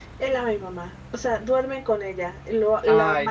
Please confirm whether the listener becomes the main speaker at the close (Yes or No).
No